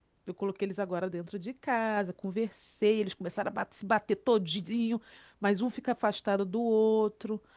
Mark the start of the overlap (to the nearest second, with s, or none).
none